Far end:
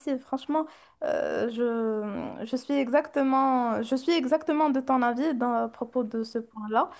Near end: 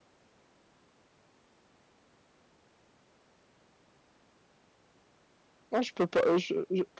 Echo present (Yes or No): No